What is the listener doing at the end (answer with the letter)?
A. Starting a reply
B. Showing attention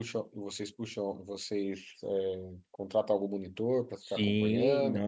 A